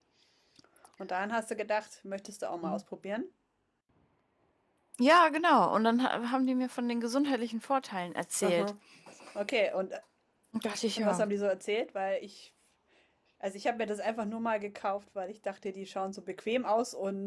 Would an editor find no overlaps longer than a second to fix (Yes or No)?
Yes